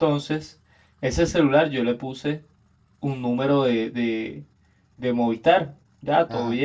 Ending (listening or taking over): listening